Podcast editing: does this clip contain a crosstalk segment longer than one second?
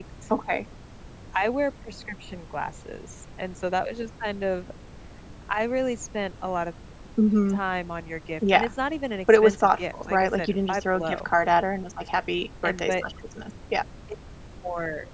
Yes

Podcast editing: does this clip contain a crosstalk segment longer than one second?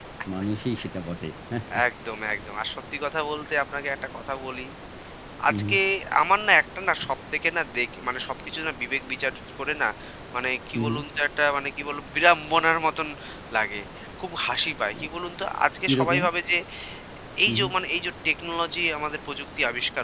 No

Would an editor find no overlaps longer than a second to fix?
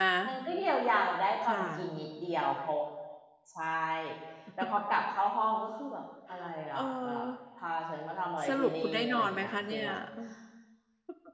No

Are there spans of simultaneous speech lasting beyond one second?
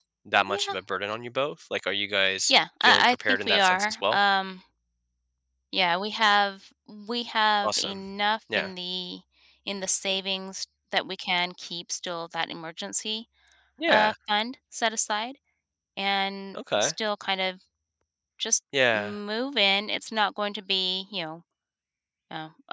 Yes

